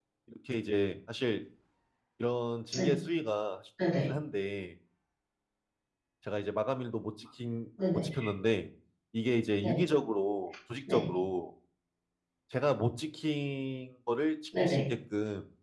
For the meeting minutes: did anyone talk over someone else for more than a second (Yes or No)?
No